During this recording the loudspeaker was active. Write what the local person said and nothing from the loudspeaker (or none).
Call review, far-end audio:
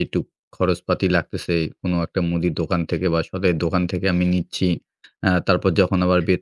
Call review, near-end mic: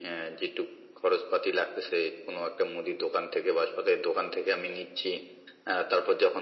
none